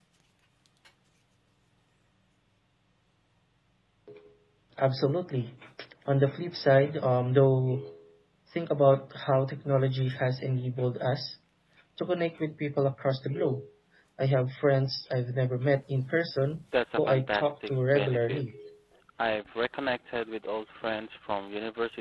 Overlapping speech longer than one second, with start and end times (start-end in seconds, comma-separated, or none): 17.0-18.4